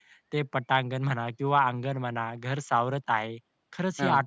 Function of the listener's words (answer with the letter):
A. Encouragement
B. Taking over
A